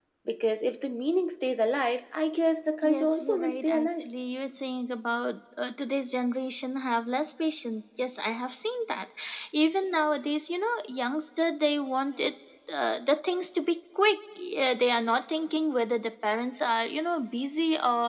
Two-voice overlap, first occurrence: 2.8 s

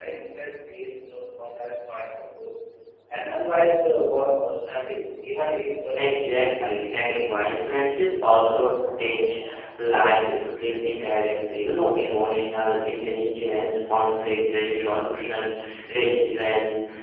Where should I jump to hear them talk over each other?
6.0 s

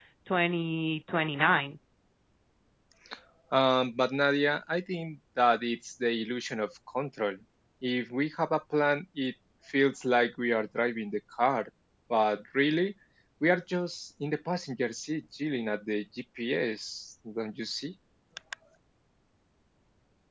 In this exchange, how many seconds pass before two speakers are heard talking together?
none

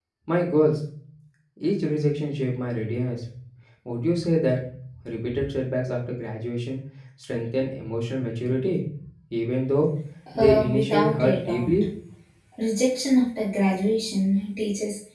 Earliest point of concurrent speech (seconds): 10.4 s

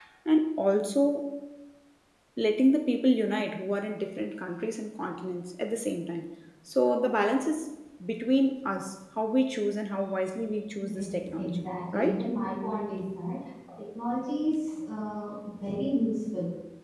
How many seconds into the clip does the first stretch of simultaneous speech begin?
10.8 s

